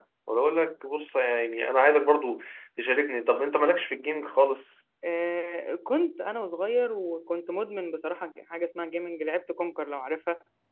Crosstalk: none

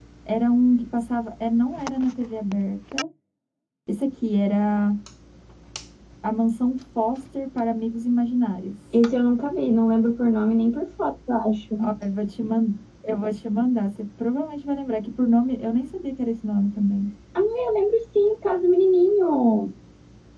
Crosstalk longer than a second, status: none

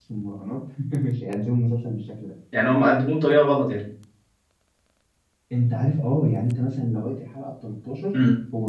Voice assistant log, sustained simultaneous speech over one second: none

